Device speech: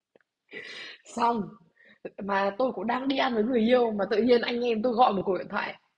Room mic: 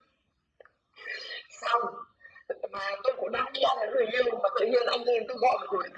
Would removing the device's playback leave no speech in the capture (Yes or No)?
Yes